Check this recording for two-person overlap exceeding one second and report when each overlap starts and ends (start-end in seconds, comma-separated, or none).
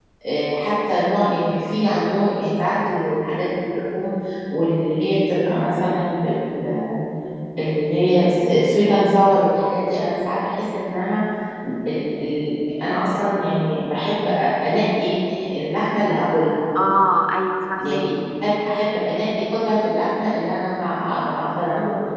none